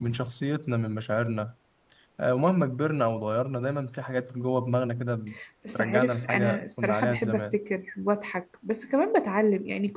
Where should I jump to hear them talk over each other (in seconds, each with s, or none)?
5.8 s